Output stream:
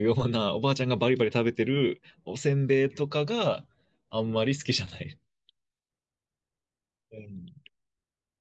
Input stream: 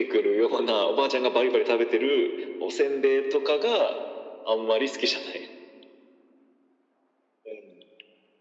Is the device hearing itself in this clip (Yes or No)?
Yes